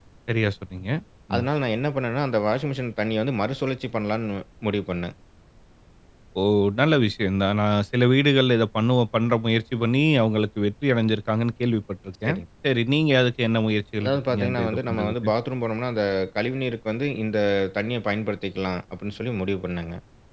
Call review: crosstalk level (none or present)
present